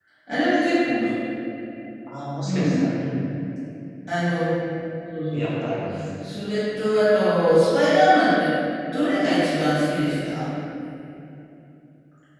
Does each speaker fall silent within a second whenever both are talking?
Yes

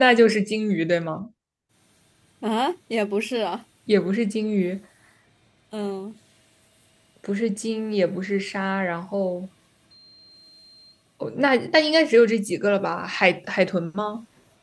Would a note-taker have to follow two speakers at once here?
No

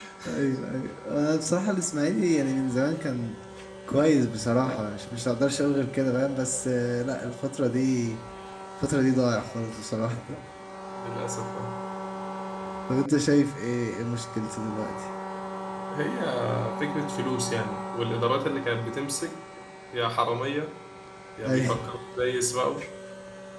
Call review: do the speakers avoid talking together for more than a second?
Yes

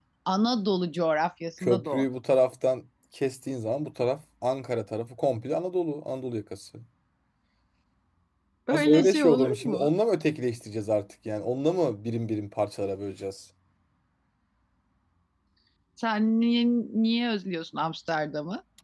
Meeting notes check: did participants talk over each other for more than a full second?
Yes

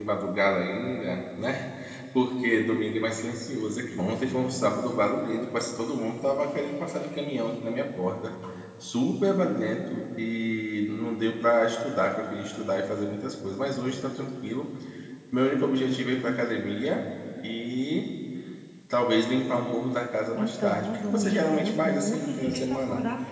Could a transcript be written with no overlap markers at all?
No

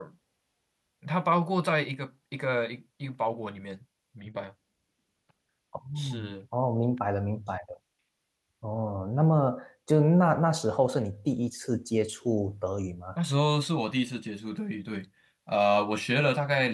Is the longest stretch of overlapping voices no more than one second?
Yes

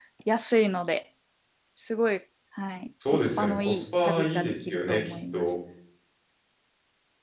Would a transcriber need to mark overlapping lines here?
Yes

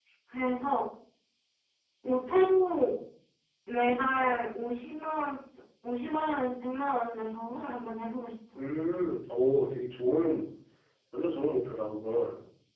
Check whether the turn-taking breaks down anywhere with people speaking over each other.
No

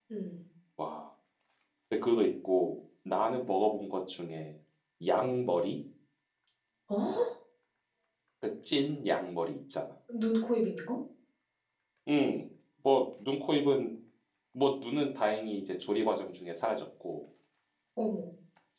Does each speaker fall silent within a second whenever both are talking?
Yes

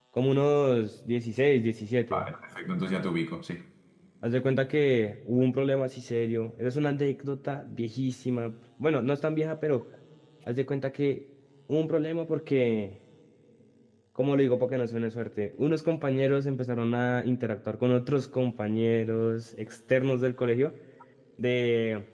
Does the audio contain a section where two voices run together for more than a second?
No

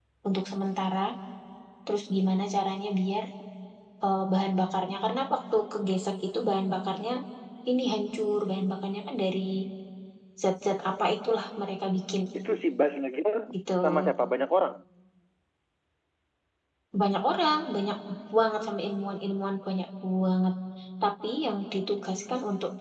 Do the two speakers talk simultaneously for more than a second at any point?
No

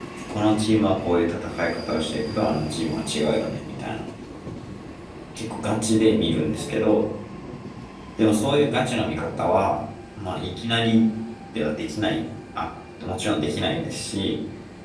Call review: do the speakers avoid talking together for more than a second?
Yes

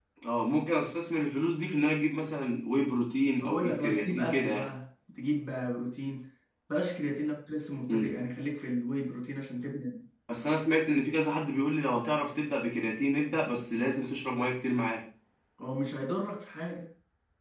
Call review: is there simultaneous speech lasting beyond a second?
Yes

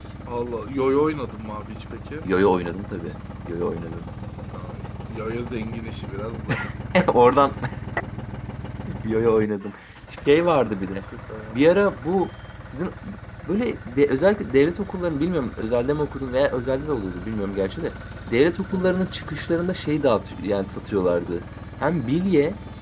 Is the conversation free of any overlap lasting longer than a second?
Yes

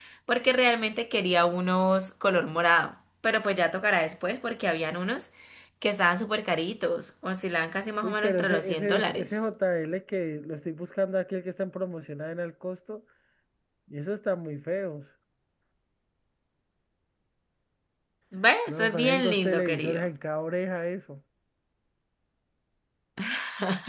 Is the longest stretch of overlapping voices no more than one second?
No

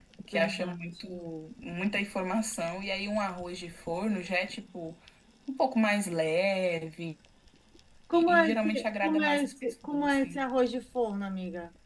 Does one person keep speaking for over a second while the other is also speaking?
Yes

